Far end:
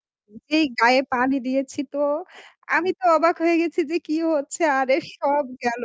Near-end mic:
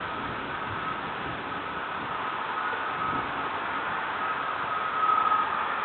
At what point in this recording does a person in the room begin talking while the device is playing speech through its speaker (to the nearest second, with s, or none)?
none